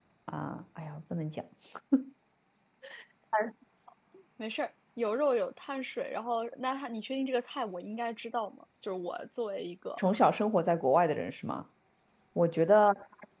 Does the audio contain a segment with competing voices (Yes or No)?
No